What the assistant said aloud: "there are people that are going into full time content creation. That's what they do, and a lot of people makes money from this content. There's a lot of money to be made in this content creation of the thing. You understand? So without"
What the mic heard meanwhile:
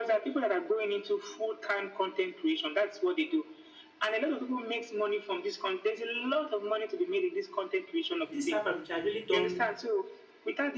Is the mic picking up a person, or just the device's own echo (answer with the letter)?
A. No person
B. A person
B